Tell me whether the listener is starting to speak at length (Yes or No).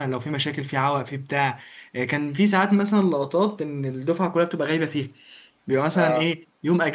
No